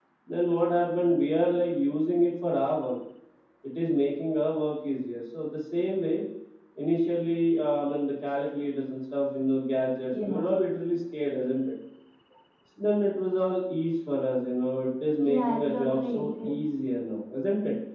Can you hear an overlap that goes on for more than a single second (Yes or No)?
Yes